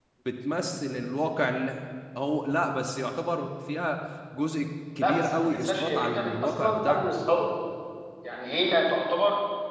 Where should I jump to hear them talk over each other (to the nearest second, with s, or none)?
5 s